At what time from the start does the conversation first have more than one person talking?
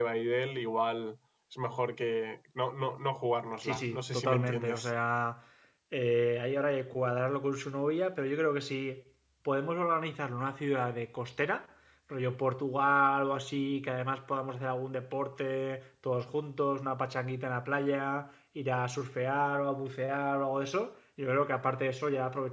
3.6 s

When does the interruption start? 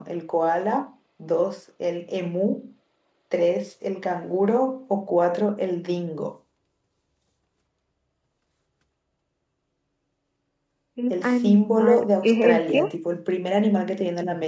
11.1 s

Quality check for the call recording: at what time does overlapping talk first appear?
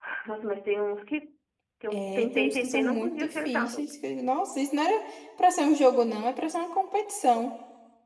1.9 s

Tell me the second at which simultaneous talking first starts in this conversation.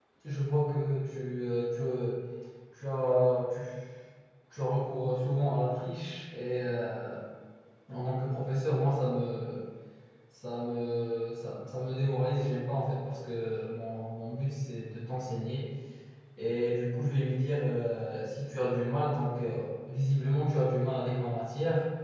none

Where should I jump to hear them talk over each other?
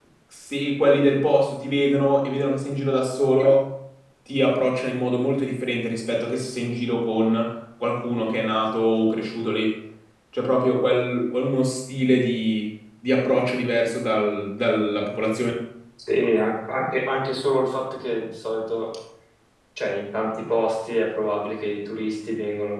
none

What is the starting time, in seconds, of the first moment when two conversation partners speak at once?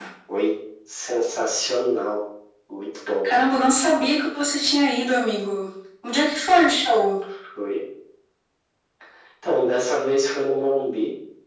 none

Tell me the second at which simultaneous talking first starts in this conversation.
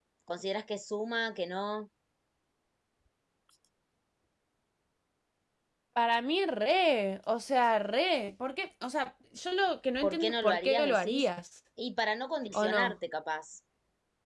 10.0 s

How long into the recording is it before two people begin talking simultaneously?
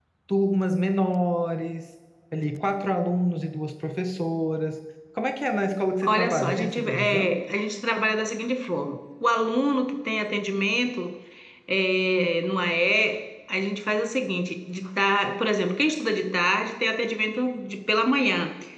6.0 s

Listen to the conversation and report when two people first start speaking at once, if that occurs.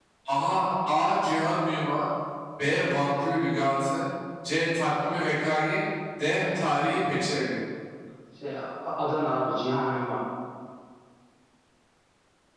none

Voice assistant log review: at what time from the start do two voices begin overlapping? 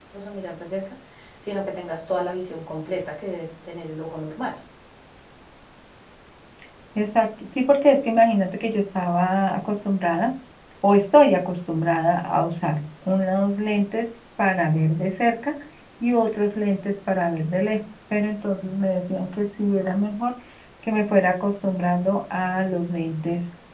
none

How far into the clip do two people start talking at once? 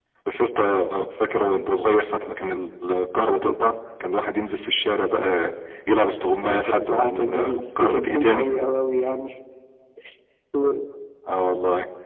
6.2 s

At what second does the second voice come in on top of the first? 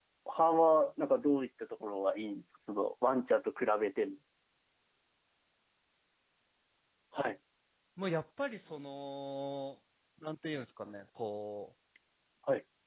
none

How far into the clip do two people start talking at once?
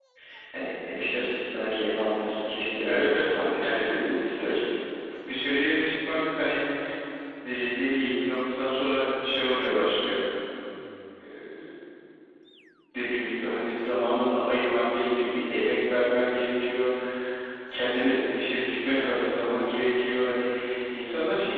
2.8 s

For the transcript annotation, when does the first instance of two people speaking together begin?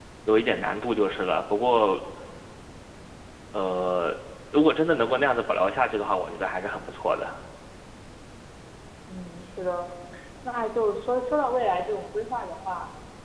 none

